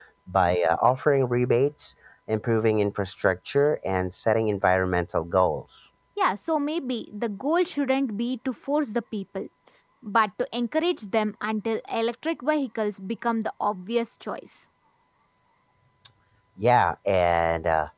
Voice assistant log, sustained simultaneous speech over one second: none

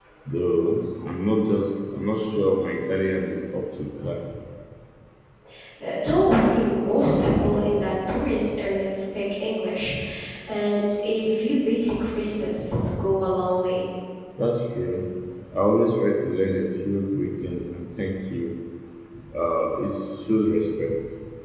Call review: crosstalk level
none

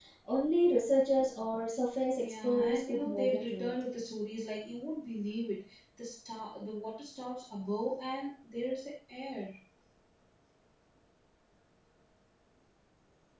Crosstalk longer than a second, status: present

